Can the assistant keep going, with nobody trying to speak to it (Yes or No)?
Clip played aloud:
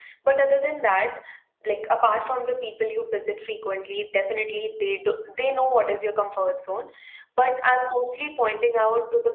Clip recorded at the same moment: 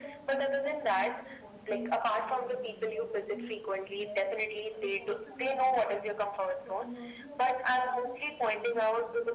No